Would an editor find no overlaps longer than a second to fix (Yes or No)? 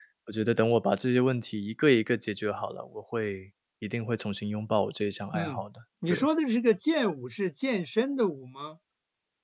Yes